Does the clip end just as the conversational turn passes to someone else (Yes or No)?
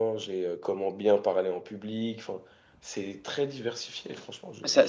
Yes